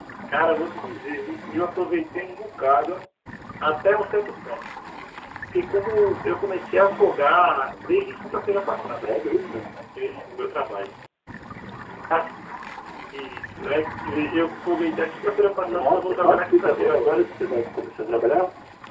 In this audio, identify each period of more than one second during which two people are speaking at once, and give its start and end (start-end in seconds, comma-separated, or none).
15.6-17.2